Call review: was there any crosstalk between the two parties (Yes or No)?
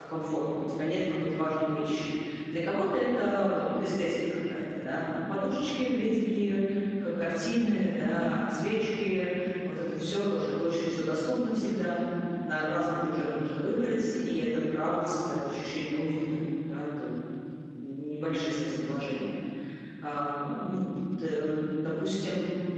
No